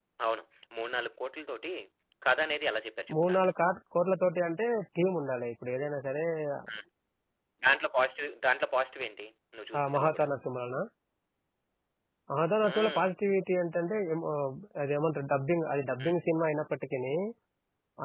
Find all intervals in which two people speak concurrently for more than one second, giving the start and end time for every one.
none

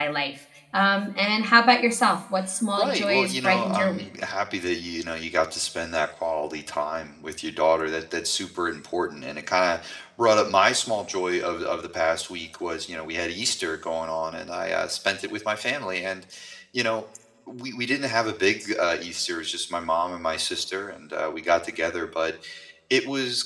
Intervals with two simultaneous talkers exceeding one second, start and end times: 2.8-4.1

